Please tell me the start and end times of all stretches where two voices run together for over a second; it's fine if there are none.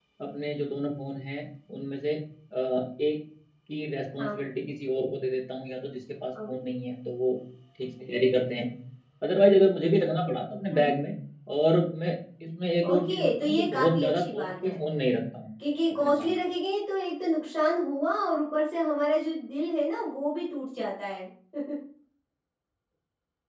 12.8-14.8

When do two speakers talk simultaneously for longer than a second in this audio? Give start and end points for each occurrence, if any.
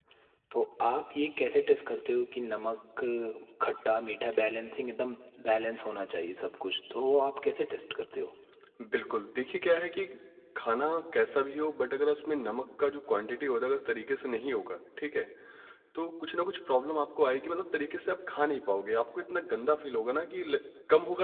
none

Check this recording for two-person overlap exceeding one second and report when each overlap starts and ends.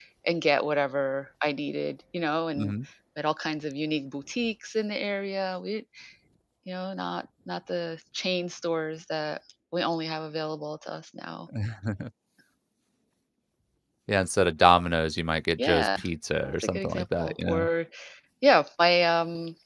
16.4-17.7

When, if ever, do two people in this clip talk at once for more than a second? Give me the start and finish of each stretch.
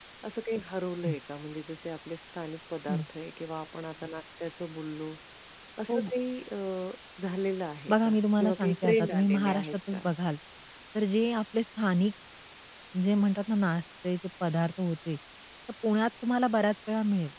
7.9-10.1

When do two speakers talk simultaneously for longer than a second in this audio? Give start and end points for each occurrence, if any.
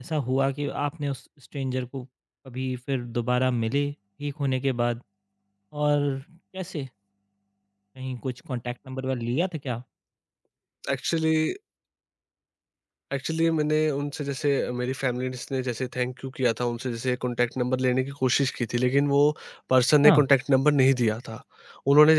none

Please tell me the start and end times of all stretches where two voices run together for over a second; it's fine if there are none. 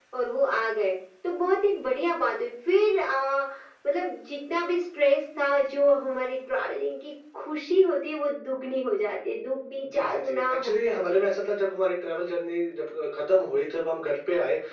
9.8-11.3

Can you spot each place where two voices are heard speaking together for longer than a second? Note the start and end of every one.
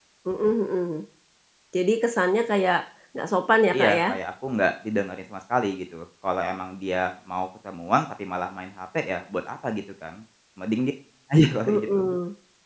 none

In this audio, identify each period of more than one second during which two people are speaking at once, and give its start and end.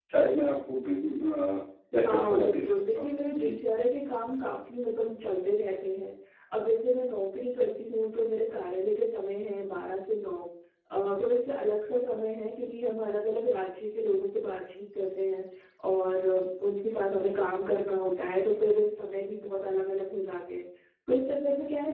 2.0-3.6

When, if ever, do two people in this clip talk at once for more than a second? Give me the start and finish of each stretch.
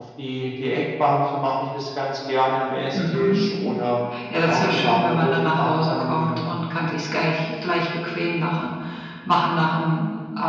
4.4-6.5

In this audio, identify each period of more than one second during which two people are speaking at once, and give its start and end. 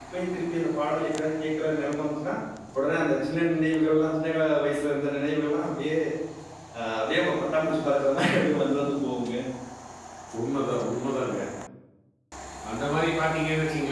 none

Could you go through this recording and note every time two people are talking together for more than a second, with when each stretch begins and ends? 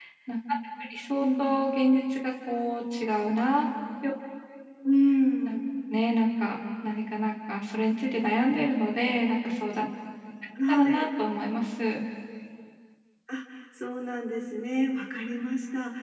none

